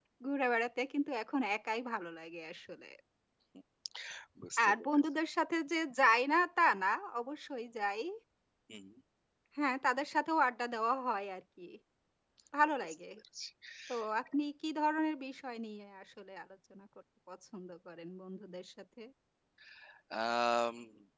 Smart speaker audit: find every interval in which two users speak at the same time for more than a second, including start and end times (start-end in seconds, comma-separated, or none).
none